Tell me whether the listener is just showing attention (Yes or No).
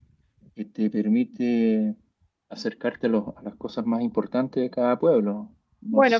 No